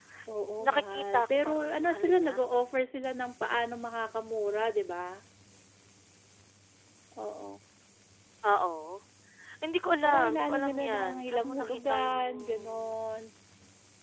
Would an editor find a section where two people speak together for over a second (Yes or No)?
Yes